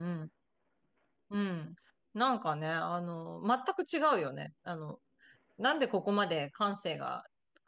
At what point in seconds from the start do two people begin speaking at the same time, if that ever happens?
none

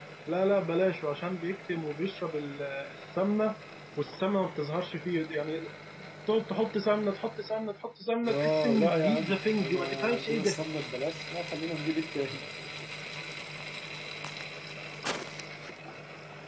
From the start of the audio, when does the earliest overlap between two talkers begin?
8 s

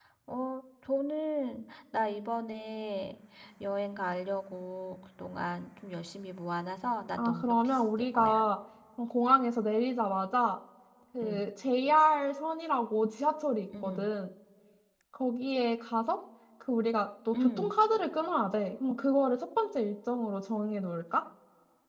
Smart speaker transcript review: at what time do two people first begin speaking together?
7 s

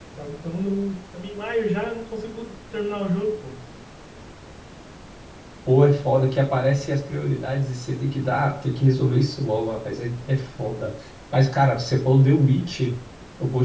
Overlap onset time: none

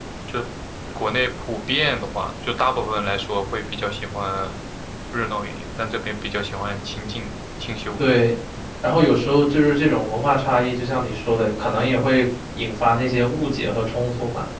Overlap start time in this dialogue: none

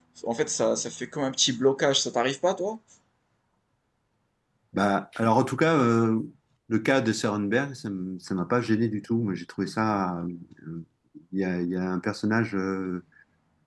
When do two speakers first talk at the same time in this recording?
none

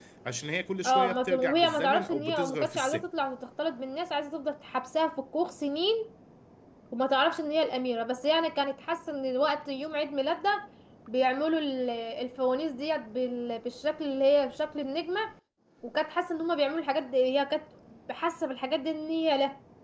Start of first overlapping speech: 1 s

